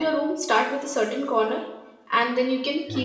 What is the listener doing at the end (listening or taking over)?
listening